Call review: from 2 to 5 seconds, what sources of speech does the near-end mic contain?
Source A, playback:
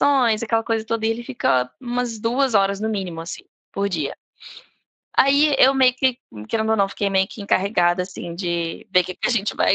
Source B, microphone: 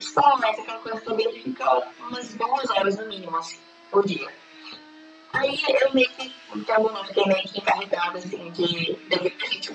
echo only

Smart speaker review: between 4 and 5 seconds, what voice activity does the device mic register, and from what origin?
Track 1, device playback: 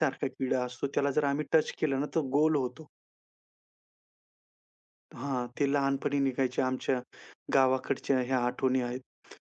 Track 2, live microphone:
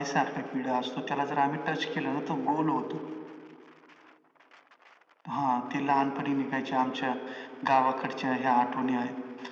neither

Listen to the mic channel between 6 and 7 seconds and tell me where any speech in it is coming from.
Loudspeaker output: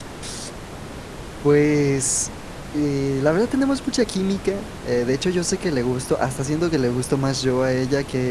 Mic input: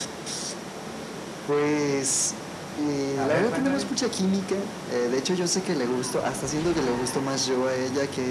echo only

